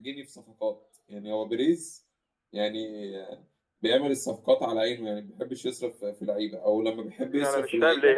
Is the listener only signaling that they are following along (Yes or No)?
No